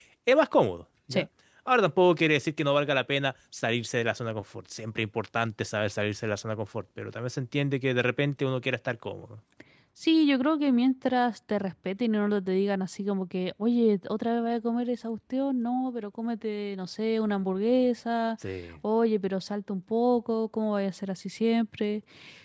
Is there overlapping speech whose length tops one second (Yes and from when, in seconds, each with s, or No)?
No